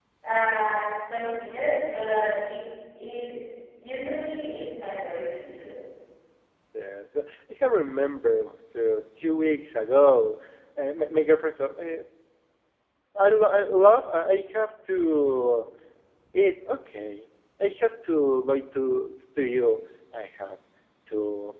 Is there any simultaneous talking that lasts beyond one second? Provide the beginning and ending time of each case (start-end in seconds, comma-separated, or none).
none